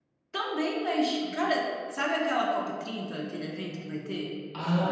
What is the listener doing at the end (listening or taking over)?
taking over